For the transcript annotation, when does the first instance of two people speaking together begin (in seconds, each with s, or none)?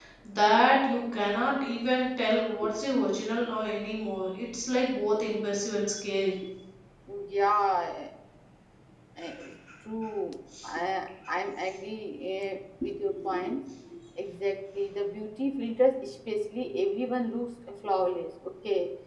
none